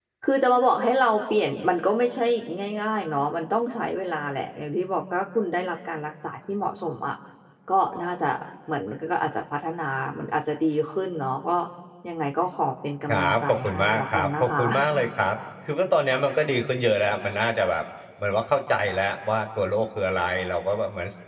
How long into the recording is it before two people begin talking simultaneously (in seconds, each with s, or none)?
13.1 s